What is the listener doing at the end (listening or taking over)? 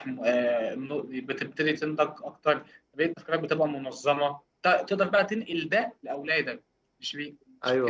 taking over